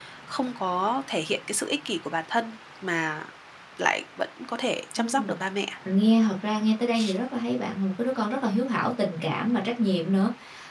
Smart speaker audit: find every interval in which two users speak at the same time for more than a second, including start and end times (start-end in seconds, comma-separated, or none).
none